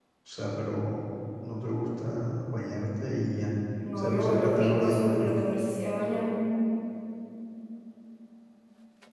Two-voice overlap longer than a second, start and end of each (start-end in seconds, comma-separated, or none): 4.0-5.4